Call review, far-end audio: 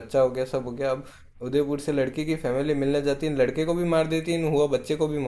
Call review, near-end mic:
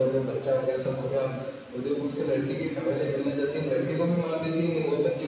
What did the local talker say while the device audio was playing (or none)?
none